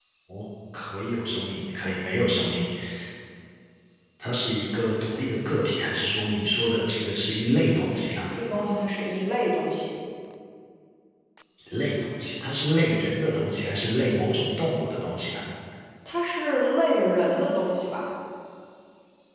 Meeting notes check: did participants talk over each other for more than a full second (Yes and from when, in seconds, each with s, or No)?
No